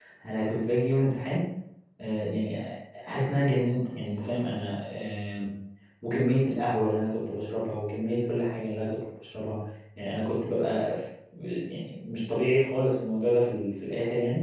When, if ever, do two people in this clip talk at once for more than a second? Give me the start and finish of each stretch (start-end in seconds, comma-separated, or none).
none